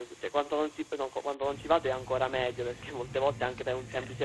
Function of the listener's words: listening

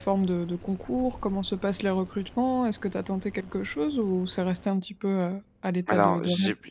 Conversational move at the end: taking over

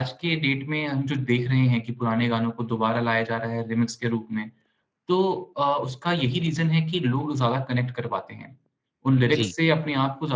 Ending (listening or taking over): listening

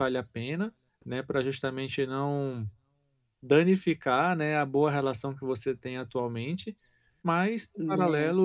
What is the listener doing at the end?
listening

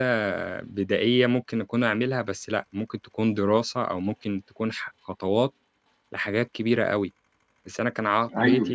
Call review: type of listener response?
taking over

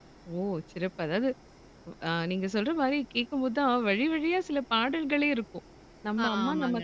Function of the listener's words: listening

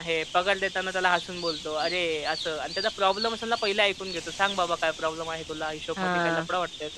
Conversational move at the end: listening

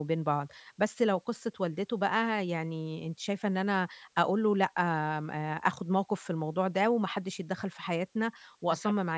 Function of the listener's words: taking over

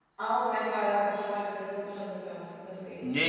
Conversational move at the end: taking over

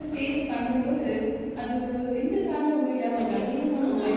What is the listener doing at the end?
taking over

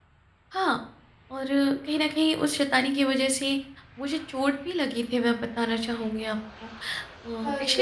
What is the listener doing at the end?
listening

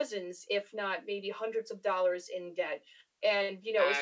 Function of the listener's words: listening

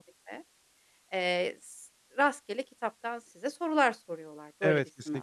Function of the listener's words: taking over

